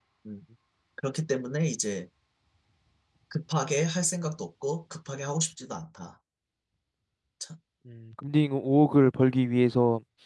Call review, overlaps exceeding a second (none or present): none